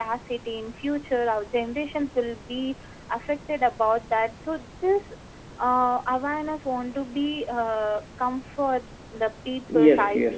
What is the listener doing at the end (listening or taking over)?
taking over